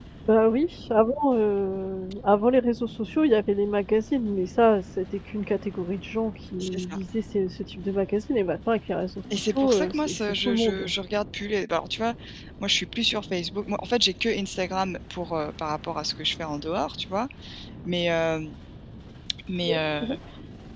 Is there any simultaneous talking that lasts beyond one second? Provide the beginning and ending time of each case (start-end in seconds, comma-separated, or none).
9.5-10.9